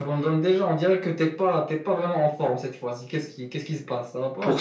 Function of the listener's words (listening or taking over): taking over